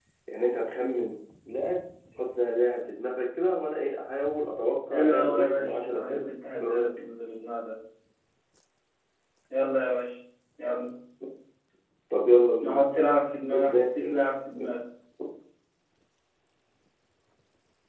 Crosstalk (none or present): present